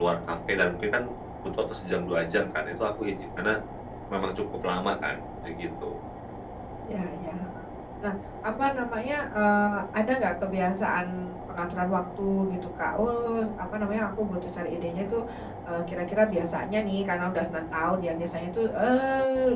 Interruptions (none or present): none